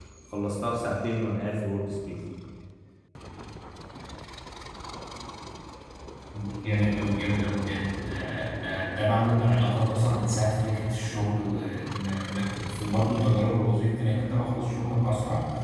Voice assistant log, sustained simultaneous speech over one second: none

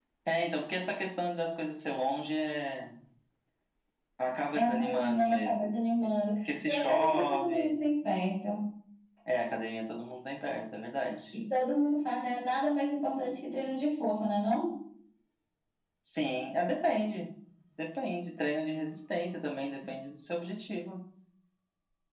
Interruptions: present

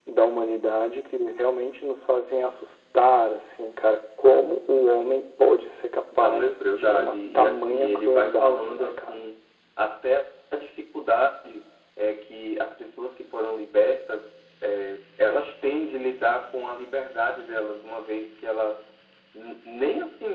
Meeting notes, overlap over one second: present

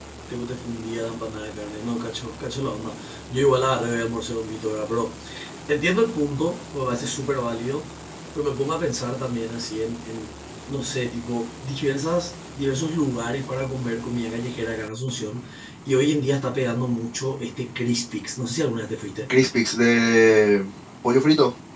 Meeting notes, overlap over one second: none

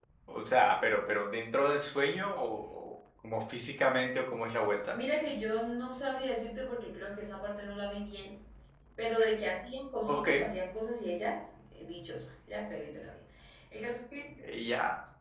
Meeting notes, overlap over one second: none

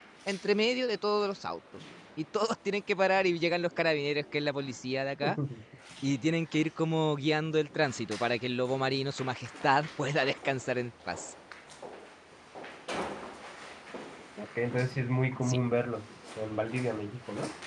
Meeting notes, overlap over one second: none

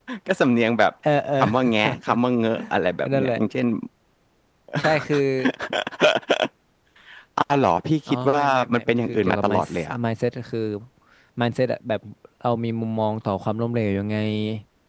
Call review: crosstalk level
present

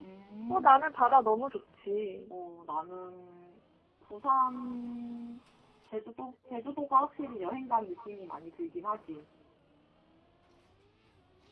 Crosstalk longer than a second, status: none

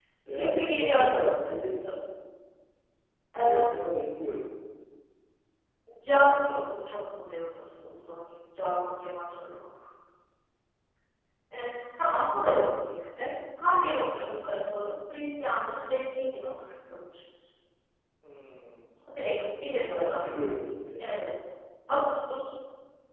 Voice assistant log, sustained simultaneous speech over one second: present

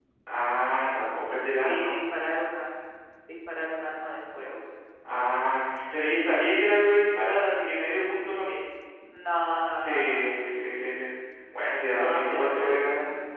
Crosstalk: present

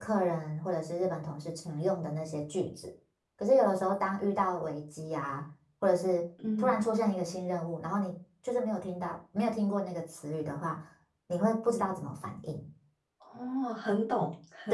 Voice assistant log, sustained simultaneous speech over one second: none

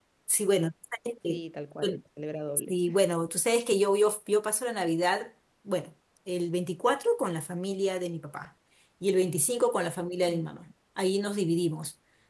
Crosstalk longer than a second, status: none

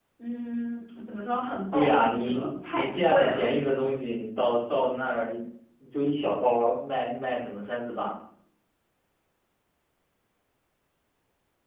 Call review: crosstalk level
present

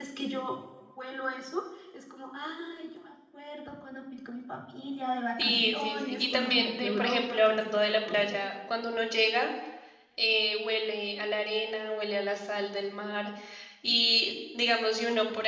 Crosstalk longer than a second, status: present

